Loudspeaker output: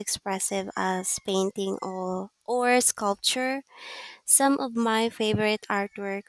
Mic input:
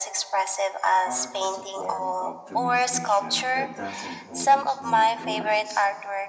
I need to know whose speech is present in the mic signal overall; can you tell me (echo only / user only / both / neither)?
both